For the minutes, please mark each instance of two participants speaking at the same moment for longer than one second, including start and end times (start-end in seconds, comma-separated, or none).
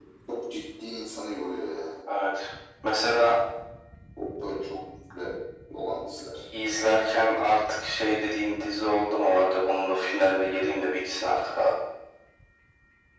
none